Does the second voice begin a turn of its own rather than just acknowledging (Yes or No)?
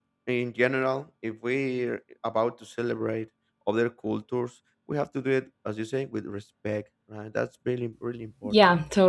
Yes